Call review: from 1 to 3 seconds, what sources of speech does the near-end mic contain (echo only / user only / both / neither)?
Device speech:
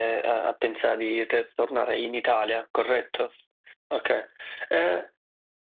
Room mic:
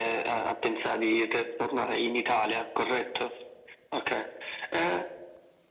echo only